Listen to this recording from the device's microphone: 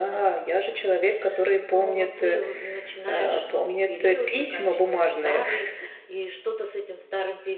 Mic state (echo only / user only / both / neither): echo only